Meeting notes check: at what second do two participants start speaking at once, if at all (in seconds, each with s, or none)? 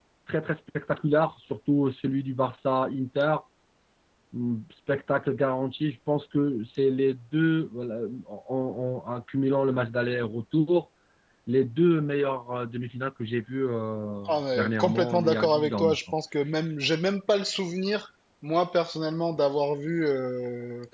14.2 s